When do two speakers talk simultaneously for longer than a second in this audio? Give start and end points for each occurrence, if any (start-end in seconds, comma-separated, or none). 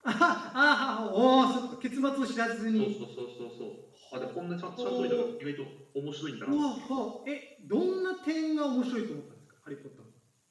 none